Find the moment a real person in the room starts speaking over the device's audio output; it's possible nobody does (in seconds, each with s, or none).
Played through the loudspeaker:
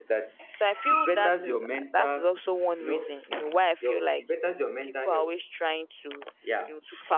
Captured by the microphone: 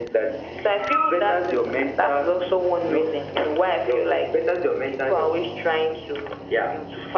none